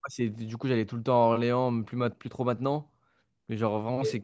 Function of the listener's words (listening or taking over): listening